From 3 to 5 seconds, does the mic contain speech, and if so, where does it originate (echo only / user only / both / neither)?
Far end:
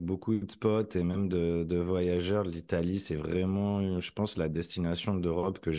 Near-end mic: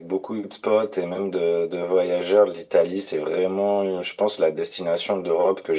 echo only